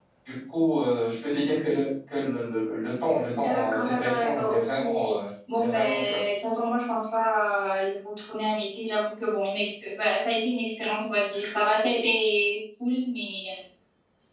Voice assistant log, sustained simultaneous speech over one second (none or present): present